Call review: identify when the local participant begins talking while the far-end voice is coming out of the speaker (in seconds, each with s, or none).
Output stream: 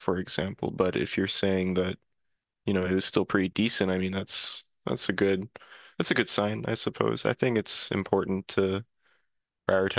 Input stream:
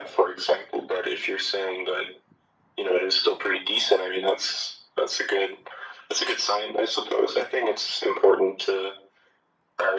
none